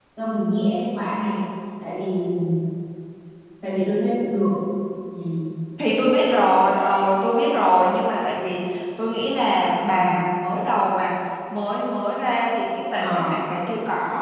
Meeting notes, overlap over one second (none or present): none